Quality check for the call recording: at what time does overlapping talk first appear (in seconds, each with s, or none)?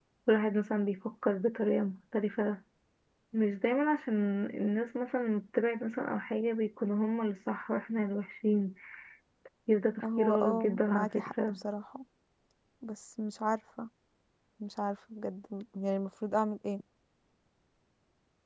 10.0 s